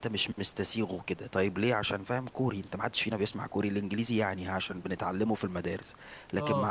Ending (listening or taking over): listening